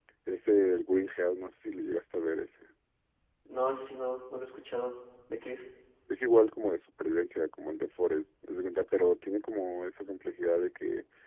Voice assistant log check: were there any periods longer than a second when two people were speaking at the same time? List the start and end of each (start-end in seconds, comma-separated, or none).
none